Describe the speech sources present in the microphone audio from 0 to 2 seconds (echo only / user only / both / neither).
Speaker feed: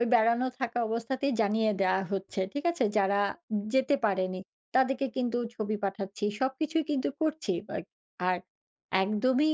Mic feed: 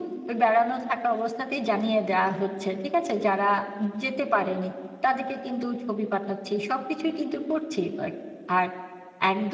echo only